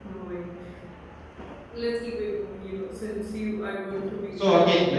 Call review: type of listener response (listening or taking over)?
taking over